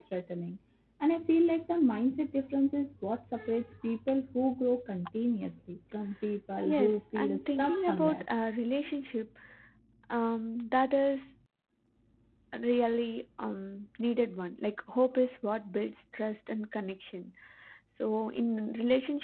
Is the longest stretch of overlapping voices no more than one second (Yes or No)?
No